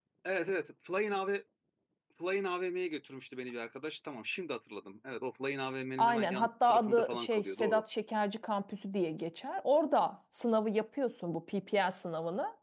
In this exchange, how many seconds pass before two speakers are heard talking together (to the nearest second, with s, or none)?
6 s